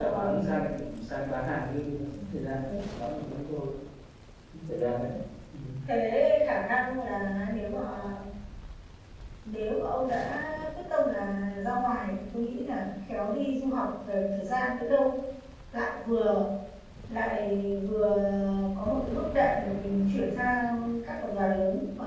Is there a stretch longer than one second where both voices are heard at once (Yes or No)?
No